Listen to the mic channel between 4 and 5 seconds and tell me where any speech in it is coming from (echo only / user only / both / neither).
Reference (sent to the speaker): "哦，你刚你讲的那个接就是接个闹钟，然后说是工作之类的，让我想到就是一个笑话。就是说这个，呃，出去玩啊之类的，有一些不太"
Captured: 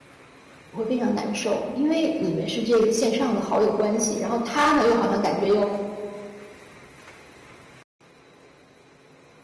user only